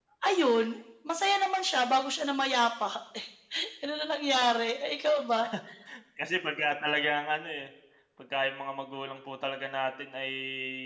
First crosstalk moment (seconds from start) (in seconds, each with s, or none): none